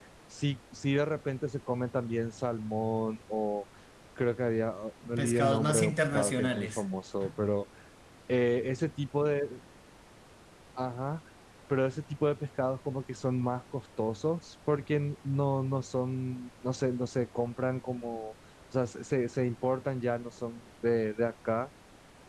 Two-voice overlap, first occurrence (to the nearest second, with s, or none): 5 s